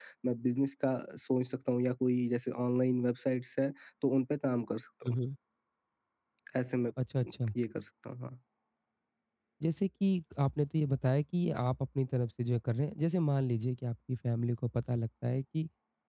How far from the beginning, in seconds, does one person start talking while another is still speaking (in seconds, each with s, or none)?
none